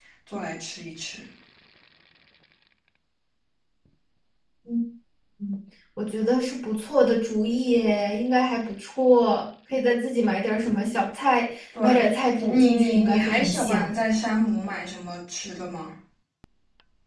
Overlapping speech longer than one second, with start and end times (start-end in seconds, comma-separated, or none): 11.8-13.9